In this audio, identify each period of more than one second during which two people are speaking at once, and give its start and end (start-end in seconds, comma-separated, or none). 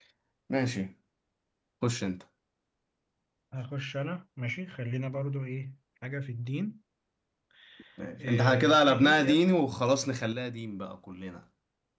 8.2-9.4